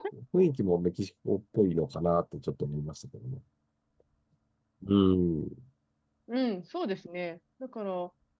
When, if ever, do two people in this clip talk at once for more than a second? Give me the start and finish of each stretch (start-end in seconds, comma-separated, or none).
none